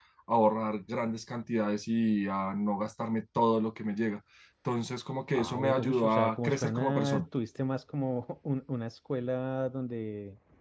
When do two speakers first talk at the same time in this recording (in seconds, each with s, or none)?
5.3 s